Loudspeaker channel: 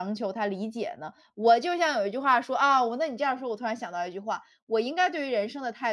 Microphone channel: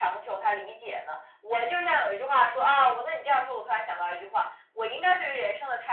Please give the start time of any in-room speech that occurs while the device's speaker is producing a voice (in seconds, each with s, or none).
none